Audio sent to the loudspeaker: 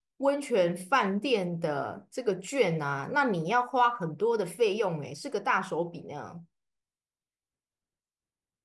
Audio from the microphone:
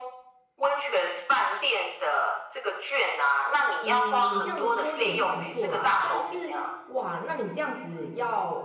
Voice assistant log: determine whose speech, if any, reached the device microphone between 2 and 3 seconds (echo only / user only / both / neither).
echo only